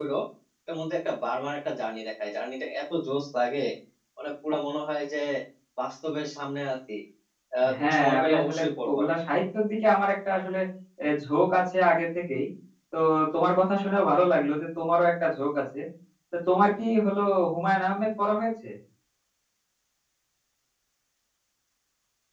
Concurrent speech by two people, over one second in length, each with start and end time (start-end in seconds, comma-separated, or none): 7.8-9.0